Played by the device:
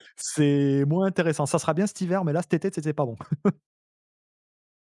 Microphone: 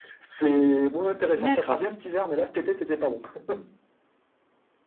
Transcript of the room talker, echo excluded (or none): D'accord.